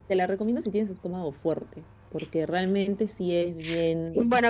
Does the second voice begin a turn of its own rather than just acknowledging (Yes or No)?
Yes